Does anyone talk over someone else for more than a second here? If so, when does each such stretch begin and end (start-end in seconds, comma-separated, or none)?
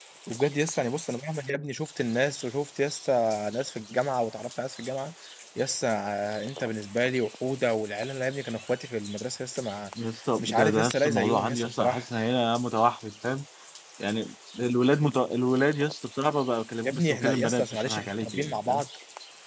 10.4-12.0, 16.8-18.8